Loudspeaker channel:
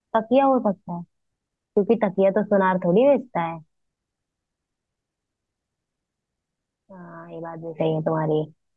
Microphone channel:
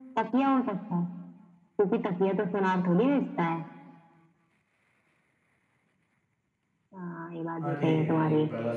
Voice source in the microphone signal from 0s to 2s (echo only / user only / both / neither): echo only